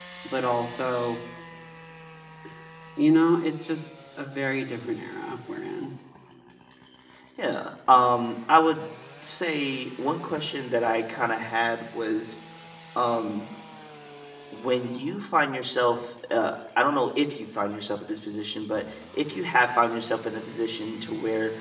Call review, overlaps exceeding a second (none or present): none